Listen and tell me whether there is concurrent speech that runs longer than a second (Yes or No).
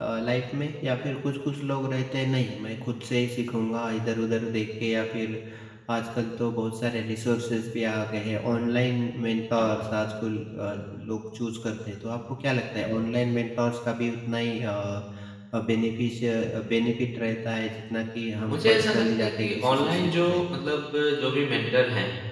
Yes